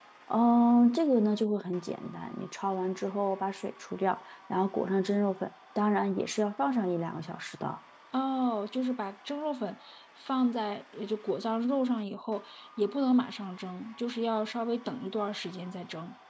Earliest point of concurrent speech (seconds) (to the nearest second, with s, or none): none